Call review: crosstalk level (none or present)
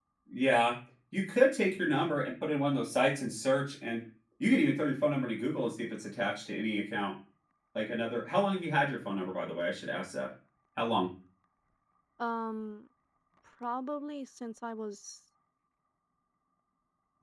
none